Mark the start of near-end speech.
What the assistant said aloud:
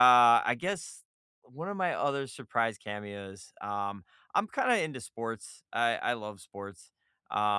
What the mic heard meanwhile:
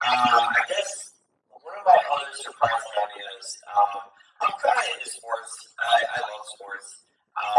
none

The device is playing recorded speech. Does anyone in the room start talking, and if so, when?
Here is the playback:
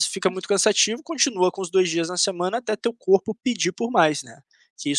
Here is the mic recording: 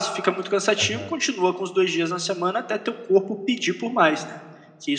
1 s

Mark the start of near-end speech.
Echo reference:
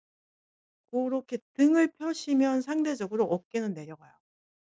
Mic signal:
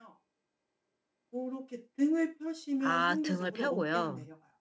3 s

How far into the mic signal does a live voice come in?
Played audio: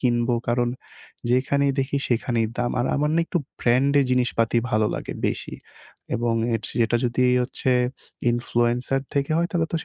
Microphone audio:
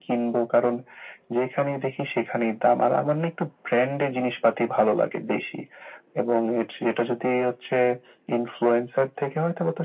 none

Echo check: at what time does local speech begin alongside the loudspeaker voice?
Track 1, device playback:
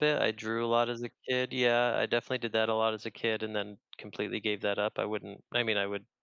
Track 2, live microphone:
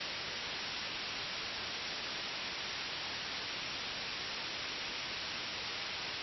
none

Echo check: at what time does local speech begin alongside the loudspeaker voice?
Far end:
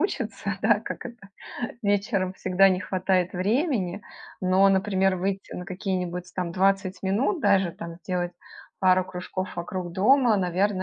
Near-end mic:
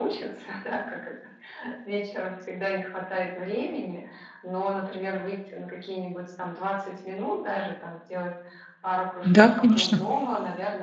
9 s

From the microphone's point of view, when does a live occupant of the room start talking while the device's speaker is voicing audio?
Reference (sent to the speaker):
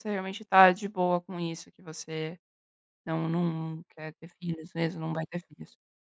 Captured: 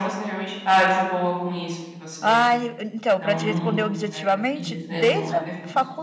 2 s

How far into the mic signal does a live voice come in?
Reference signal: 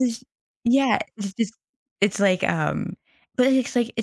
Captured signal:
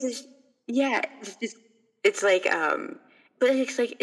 none

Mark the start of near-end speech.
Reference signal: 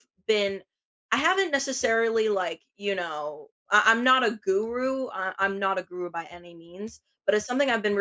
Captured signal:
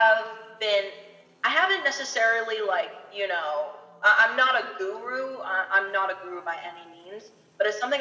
none

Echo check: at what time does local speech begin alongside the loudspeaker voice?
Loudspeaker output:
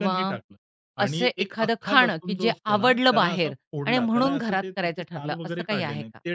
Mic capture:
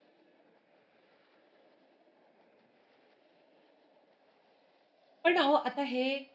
5 s

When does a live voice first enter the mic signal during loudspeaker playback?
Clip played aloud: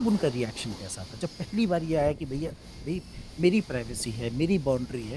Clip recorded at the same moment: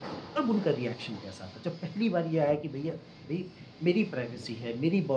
none

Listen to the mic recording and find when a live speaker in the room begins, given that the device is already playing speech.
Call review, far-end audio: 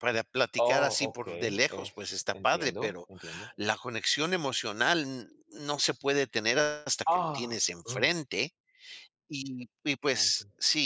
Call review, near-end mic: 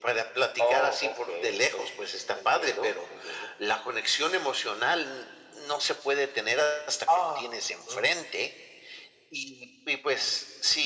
none

